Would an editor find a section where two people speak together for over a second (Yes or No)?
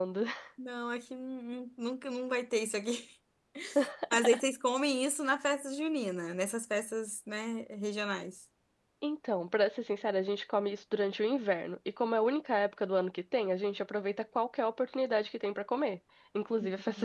No